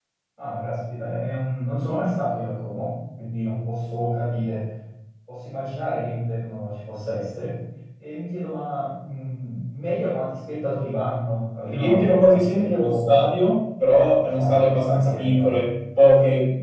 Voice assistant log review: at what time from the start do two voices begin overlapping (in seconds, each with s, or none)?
11.7 s